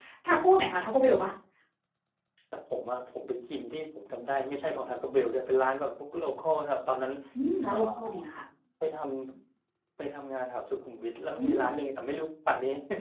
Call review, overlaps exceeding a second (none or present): none